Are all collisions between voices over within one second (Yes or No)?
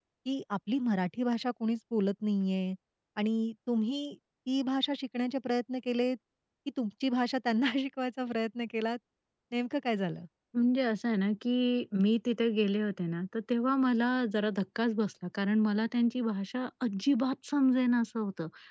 Yes